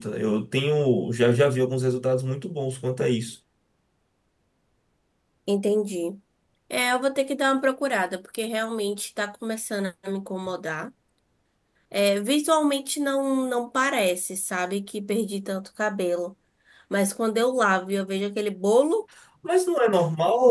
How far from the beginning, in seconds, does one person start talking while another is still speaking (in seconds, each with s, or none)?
none